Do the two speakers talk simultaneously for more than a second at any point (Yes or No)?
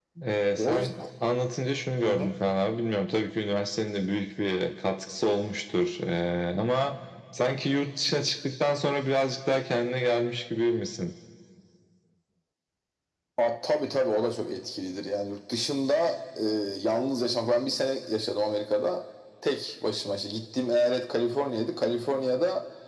No